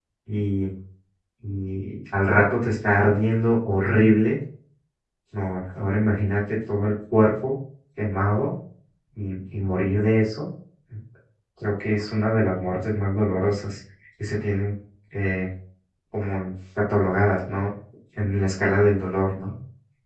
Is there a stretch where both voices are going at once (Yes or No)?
No